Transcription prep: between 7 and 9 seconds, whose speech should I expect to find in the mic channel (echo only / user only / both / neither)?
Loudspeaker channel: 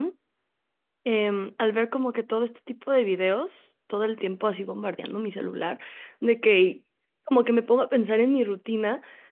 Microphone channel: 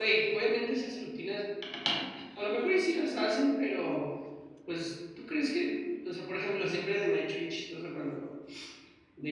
user only